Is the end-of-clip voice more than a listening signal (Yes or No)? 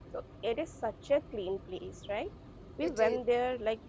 No